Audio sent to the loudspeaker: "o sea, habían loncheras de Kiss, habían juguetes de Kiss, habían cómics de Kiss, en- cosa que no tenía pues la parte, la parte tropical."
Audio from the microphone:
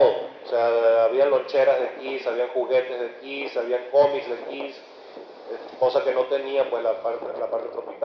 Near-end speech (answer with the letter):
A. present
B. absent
B